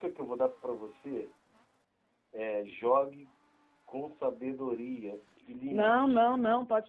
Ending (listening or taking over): taking over